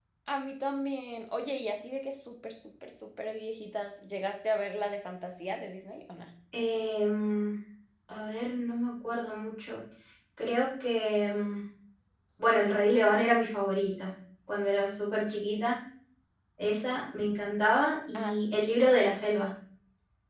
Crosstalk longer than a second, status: none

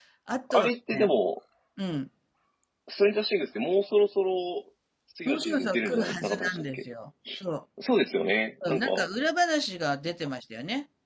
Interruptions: present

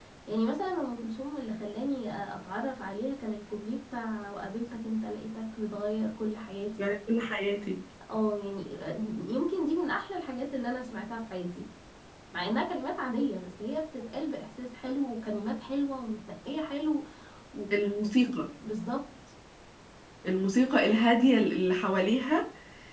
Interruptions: none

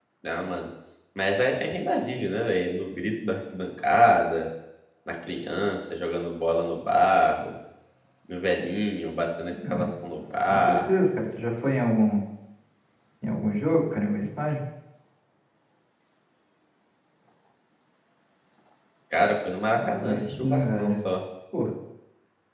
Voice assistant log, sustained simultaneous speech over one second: present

